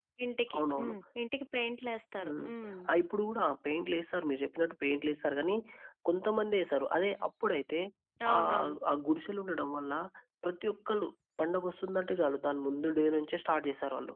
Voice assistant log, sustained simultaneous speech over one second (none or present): none